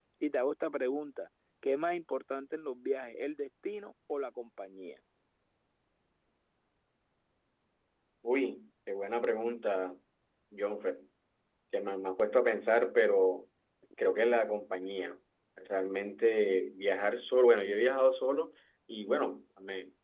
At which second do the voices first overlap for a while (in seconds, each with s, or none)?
none